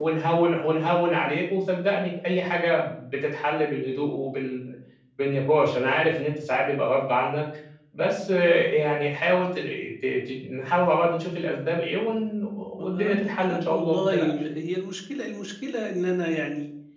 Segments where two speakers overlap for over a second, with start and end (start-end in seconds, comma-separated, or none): 12.8-14.3